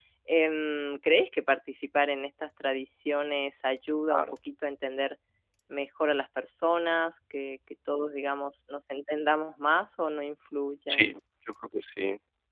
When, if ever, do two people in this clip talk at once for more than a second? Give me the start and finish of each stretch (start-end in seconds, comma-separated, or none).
none